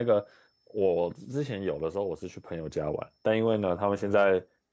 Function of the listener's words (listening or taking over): listening